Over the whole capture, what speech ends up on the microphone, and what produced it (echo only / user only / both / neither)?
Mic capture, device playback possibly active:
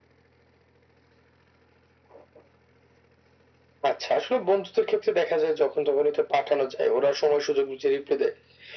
echo only